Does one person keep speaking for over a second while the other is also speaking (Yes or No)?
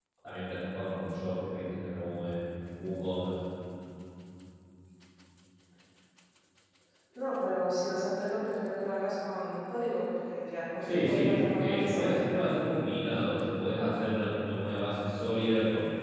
Yes